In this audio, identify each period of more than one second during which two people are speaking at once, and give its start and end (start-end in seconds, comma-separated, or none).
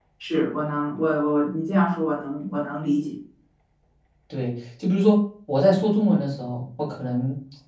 none